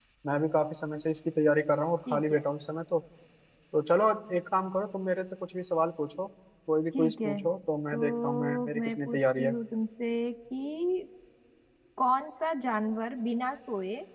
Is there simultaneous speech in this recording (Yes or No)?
Yes